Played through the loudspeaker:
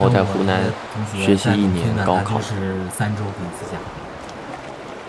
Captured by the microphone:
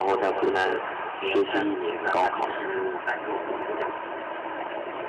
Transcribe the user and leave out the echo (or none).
none